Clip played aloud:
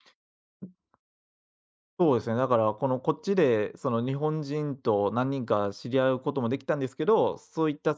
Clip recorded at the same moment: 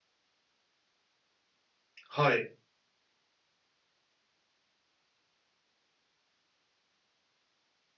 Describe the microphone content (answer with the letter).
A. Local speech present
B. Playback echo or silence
A